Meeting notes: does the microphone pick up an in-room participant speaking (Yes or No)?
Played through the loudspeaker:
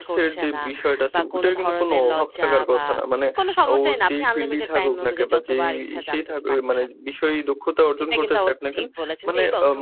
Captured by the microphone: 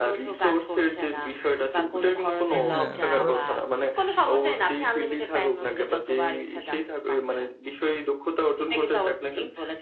Yes